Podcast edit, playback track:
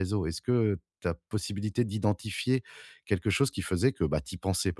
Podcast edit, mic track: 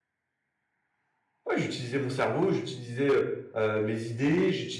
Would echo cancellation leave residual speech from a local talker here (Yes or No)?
Yes